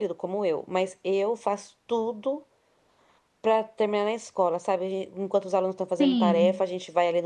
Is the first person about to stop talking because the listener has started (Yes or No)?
No